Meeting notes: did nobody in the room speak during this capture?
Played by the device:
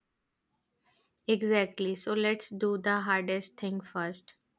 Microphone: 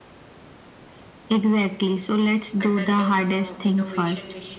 No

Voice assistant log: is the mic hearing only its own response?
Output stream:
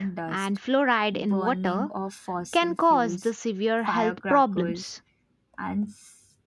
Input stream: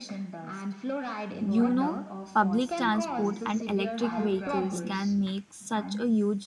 No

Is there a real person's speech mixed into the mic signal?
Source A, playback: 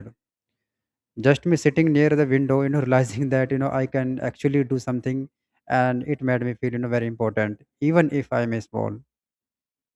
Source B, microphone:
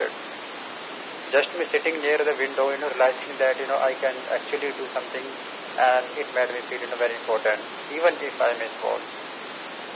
No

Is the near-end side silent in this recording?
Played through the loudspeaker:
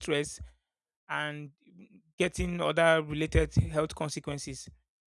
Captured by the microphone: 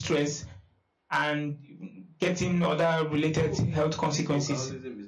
No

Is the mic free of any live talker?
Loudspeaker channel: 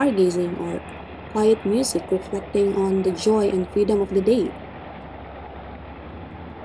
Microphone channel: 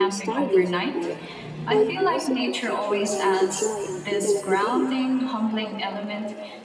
No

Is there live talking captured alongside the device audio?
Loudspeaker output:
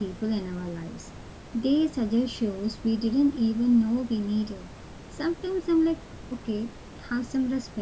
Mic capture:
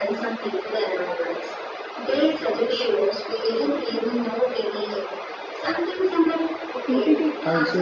Yes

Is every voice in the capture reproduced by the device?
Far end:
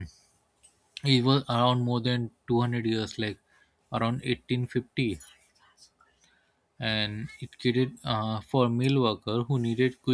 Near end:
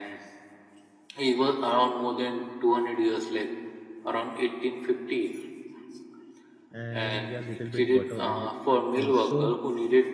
No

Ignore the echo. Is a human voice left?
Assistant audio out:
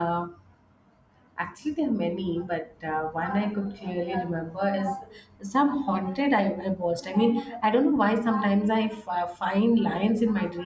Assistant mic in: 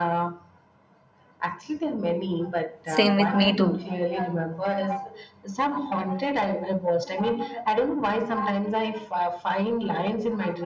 Yes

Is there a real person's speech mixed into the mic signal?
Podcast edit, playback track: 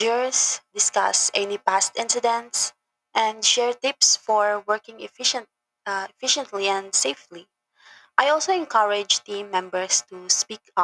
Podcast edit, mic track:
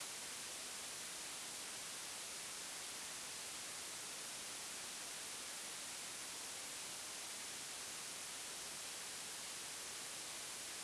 No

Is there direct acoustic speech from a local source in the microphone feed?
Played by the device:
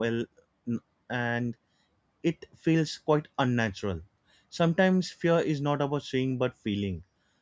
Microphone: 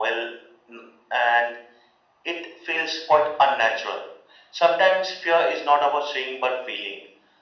No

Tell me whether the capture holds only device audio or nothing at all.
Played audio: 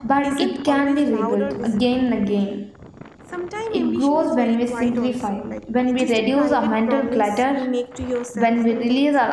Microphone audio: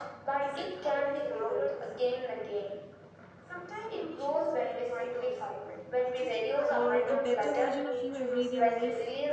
No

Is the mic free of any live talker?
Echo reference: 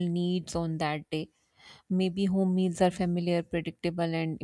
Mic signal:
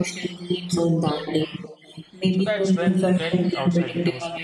No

